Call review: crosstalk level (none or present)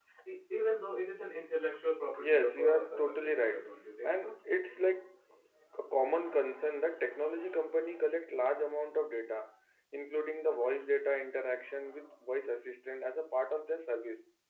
present